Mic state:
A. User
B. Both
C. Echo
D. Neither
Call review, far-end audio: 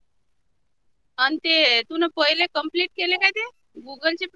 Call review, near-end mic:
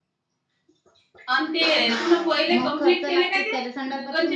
B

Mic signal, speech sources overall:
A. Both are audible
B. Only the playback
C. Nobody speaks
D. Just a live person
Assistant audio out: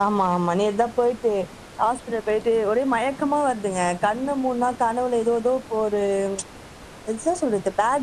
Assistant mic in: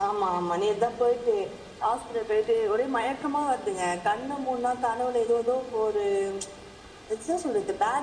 B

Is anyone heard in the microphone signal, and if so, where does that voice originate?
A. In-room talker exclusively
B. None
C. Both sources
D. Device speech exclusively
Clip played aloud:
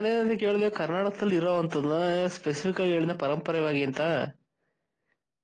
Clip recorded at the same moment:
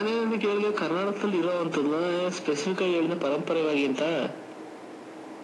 D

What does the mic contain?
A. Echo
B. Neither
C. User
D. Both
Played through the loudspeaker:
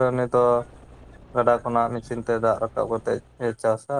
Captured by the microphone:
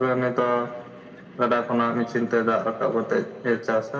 A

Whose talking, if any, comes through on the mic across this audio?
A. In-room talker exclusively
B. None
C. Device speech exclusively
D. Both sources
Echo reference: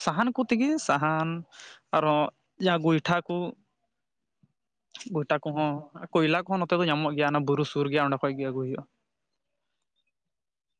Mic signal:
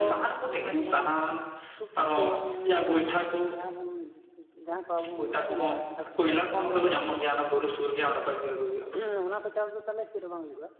D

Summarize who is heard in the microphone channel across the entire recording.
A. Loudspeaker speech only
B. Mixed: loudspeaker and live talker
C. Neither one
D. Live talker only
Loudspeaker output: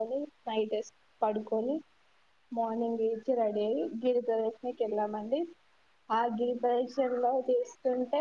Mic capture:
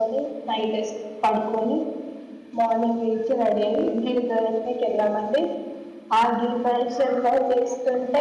A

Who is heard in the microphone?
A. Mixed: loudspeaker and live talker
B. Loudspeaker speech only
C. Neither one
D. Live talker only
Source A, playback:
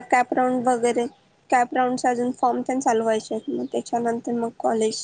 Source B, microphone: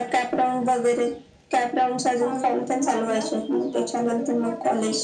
A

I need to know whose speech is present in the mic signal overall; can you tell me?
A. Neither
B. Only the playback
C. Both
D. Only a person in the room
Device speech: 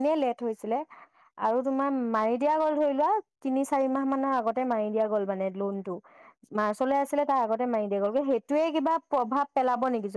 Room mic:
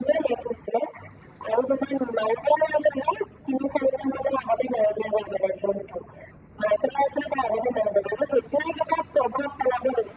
B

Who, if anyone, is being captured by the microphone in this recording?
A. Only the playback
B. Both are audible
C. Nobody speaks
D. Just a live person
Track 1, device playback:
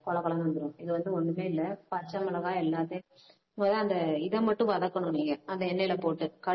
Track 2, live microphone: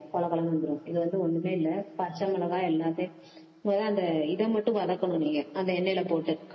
A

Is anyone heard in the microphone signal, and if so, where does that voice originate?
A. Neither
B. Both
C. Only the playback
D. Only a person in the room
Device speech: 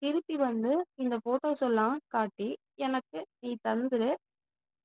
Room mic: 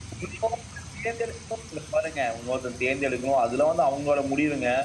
D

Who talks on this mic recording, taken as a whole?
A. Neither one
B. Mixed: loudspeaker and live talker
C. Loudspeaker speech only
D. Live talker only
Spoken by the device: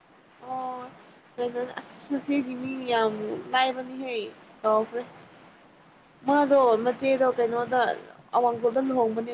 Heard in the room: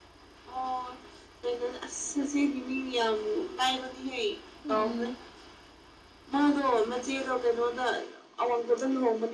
B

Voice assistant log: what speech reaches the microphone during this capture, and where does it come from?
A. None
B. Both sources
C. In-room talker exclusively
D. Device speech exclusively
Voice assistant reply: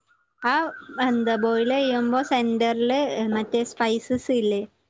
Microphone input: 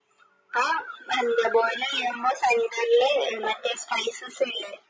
D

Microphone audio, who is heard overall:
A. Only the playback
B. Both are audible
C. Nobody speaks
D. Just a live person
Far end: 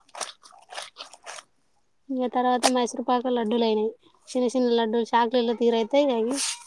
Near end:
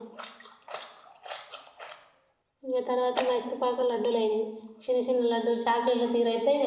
A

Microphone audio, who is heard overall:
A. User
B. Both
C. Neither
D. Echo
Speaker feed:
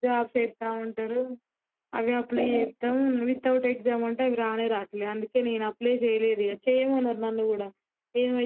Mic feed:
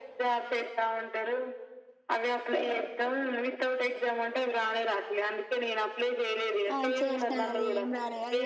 B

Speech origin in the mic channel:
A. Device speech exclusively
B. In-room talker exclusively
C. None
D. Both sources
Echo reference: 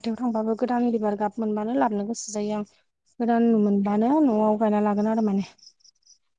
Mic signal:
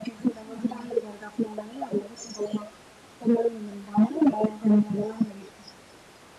D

